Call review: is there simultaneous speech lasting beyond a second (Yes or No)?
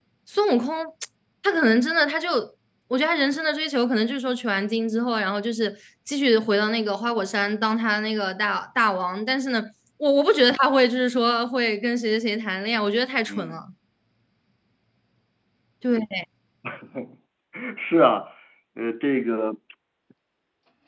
No